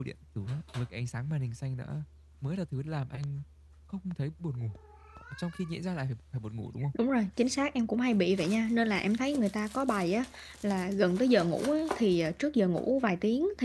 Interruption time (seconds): none

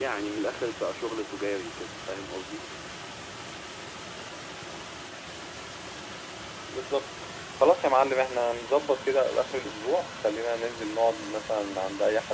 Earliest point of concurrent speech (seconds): none

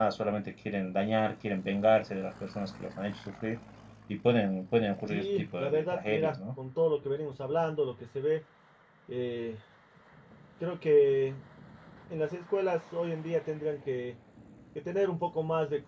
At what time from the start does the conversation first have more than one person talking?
5.1 s

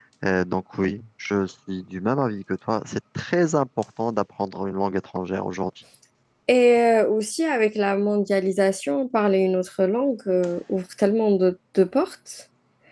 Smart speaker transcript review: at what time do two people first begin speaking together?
none

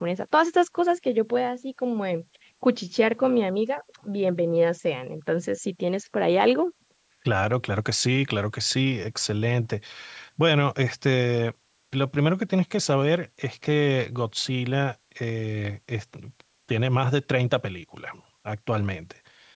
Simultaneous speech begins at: none

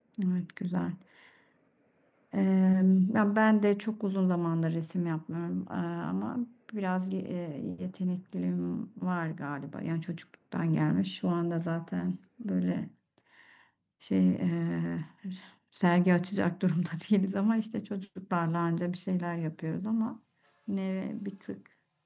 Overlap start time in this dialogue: none

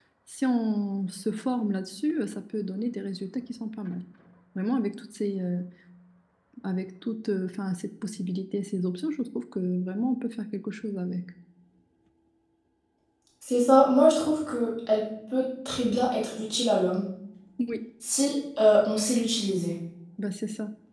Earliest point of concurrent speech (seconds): none

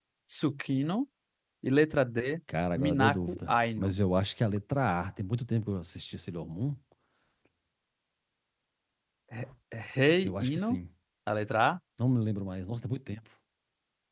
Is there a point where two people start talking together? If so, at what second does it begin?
2.8 s

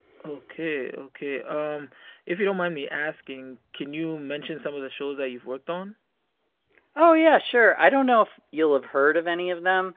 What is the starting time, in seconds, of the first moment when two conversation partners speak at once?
none

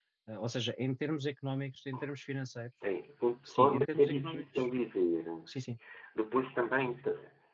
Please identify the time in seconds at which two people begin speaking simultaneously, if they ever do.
3.5 s

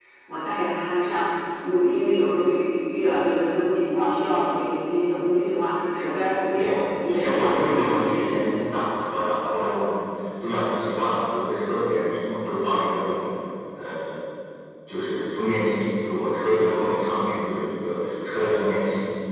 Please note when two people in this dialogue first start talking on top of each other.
6.6 s

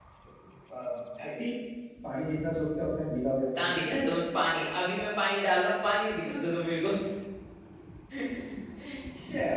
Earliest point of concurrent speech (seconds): none

